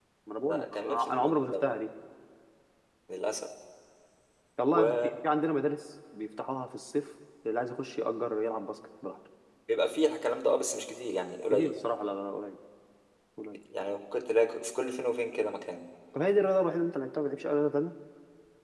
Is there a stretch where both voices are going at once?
Yes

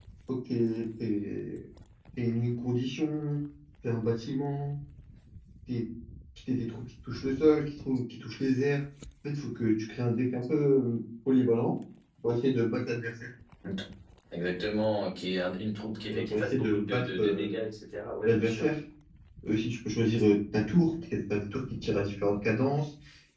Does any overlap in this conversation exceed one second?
Yes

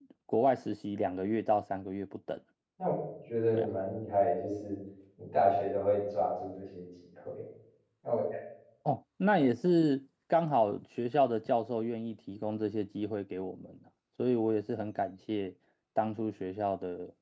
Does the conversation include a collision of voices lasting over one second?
No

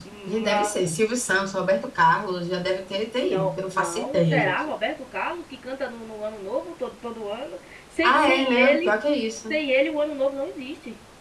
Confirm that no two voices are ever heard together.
No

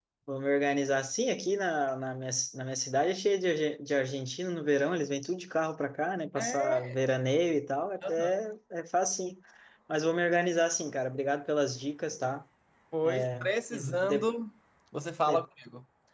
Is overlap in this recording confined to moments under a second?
No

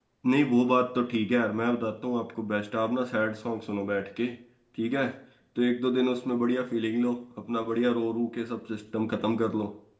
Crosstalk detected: No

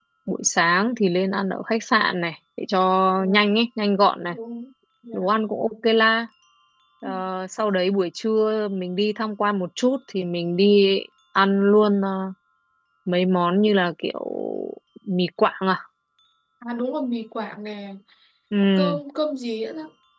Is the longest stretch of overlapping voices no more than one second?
Yes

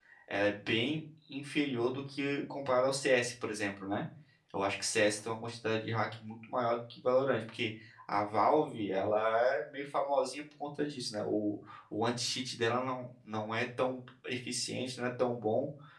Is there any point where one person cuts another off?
No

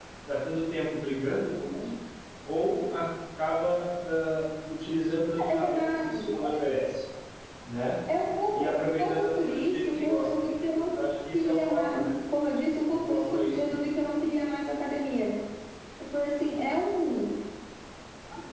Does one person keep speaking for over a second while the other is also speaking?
Yes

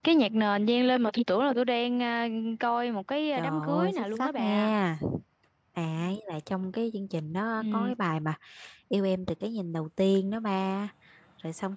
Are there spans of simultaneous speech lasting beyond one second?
Yes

